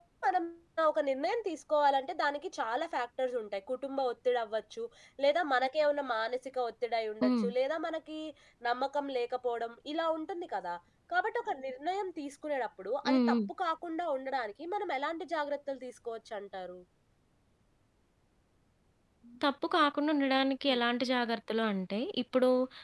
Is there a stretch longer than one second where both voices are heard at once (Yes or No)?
No